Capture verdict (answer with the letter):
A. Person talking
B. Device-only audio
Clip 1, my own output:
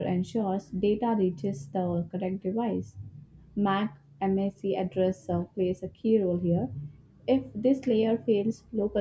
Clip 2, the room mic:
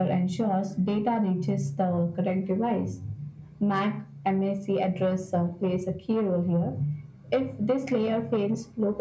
B